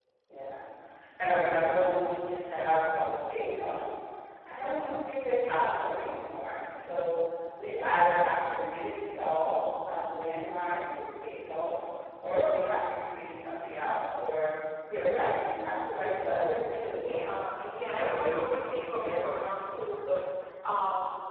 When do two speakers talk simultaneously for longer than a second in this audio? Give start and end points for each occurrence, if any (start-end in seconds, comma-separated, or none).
17.9-20.1